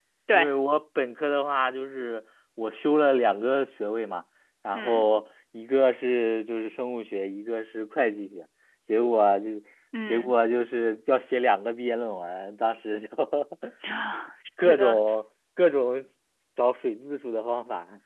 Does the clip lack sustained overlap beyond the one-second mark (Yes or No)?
Yes